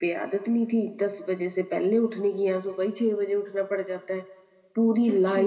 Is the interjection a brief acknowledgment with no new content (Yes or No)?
Yes